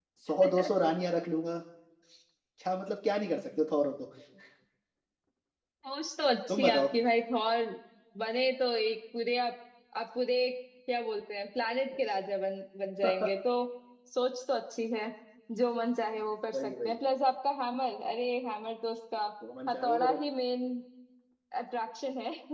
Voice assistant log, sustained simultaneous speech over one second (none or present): none